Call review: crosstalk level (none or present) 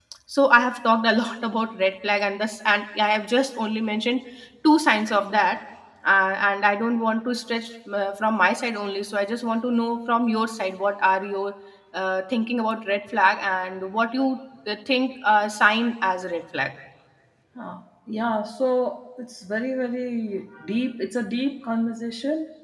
none